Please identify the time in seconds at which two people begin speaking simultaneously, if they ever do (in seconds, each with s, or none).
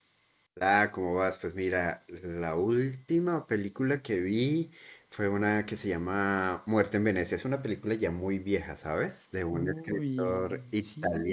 9.5 s